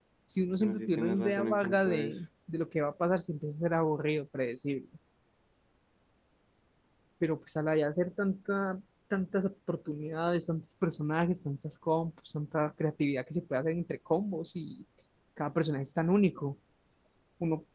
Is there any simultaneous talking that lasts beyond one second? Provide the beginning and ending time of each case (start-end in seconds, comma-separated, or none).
0.6-2.1